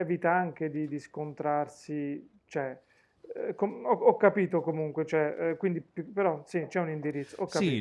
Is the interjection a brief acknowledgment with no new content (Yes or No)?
No